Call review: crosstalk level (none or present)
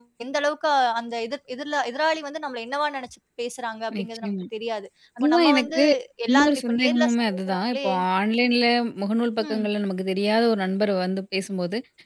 present